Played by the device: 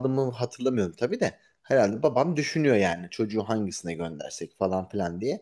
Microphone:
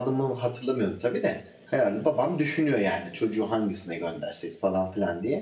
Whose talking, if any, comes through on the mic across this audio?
echo only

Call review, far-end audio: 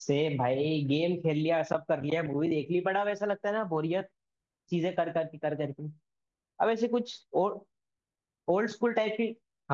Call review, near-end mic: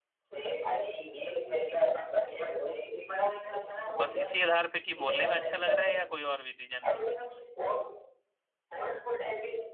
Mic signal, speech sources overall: both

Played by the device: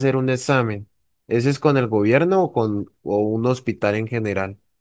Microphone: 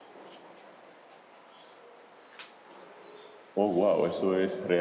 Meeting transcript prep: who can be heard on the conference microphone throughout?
user only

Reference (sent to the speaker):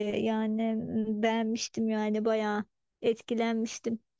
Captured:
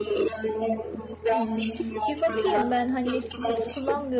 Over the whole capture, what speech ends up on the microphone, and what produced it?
both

